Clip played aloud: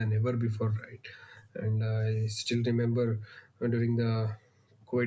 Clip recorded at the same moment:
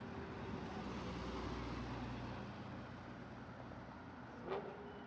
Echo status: none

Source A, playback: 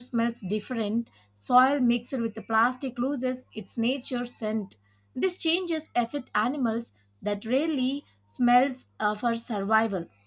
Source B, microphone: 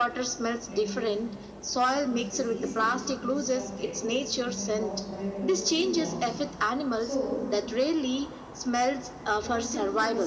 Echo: present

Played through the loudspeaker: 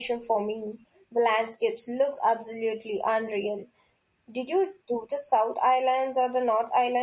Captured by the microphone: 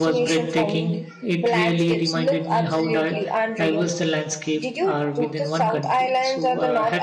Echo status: present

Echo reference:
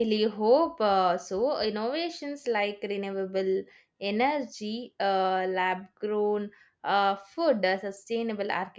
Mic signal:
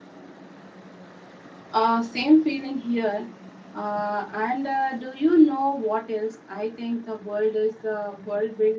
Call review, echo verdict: none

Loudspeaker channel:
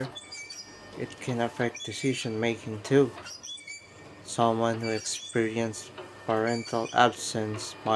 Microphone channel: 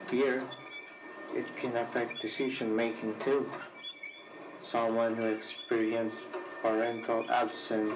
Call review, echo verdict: present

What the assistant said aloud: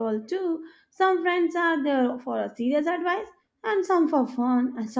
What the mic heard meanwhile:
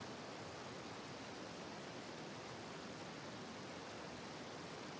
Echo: none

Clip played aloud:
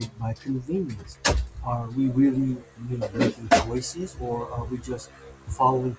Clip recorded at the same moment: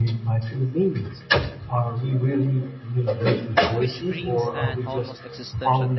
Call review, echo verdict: present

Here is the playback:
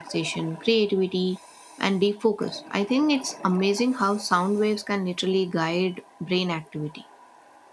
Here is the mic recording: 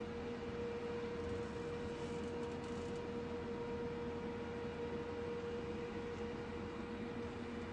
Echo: none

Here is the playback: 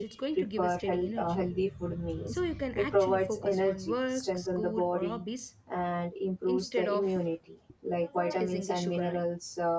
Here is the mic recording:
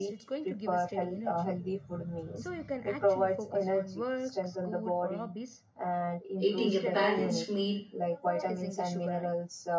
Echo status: present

